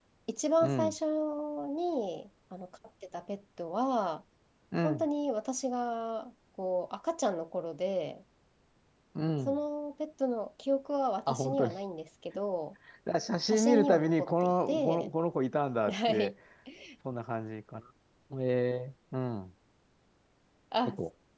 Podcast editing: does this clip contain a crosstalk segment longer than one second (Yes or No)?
Yes